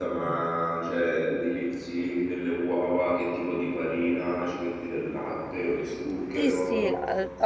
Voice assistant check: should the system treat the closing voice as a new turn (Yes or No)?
Yes